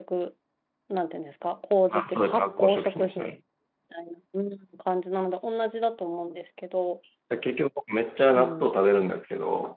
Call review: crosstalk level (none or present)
present